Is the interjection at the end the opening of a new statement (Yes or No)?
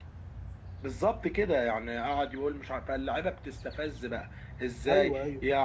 No